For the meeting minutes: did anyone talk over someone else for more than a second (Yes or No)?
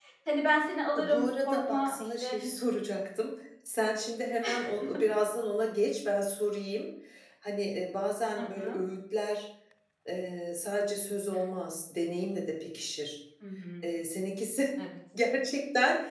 Yes